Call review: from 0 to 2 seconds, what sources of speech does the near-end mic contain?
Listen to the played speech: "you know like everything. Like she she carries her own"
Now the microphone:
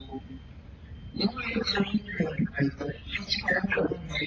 echo only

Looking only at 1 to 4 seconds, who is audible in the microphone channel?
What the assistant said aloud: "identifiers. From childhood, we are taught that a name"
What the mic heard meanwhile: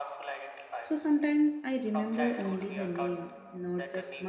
both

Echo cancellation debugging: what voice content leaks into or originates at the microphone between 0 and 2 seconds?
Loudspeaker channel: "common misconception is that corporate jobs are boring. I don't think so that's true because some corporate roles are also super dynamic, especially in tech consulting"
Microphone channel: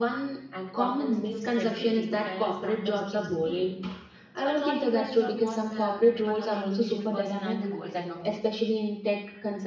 both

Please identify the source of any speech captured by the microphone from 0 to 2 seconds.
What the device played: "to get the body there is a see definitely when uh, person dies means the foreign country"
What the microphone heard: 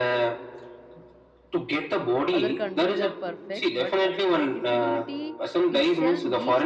echo only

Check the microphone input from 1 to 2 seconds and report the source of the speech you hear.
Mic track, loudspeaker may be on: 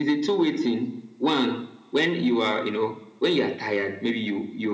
echo only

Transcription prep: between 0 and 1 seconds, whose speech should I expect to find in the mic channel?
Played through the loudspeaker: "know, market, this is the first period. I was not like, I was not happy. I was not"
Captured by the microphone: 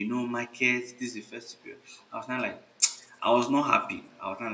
echo only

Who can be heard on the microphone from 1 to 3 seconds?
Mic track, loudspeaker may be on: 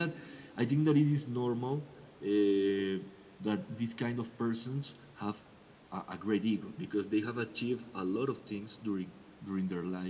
echo only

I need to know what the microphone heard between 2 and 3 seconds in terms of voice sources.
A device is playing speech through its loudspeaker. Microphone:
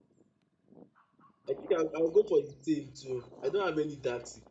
user only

